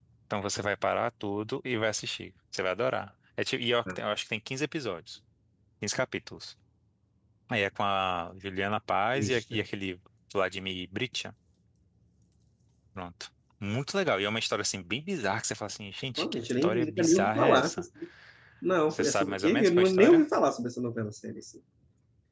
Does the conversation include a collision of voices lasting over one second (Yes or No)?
Yes